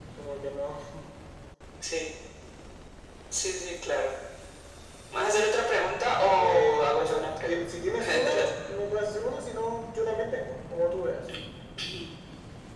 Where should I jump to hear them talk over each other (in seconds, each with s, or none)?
6.4 s